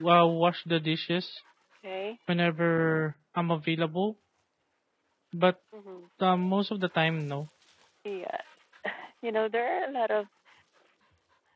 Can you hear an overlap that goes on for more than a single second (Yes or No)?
No